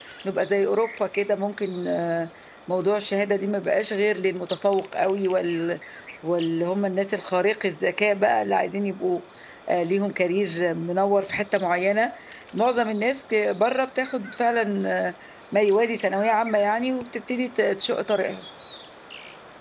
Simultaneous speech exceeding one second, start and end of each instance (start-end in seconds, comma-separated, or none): none